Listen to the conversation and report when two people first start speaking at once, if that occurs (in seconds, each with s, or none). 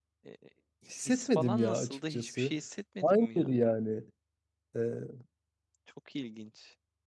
1.1 s